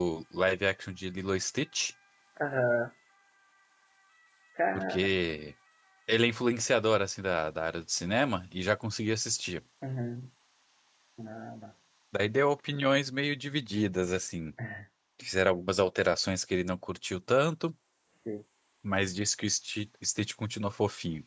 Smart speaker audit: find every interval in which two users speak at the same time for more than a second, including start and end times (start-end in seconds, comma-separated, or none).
none